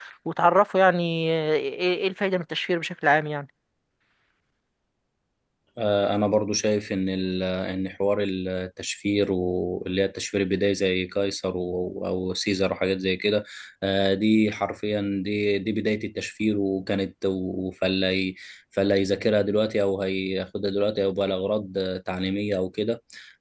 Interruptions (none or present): none